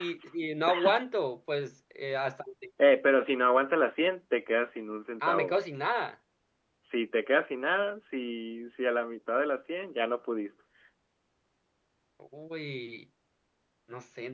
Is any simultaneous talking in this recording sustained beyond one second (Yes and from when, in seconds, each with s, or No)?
No